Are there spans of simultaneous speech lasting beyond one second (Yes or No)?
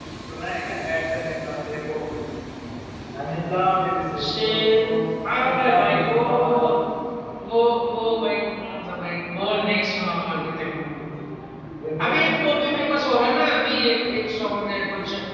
Yes